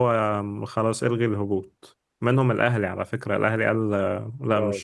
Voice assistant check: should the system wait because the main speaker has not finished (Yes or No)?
No